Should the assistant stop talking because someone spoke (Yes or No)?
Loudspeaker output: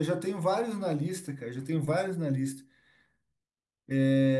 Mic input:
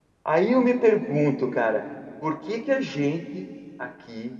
Yes